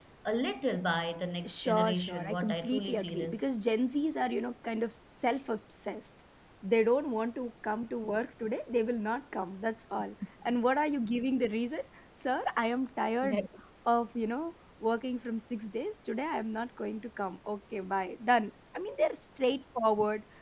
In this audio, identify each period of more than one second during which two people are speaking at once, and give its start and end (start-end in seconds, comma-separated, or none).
1.5-3.5